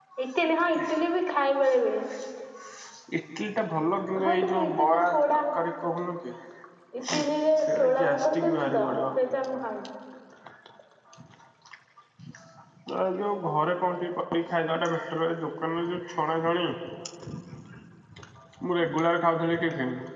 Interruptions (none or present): present